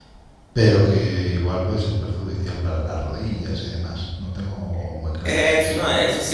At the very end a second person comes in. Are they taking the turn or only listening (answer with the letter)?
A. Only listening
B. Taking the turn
B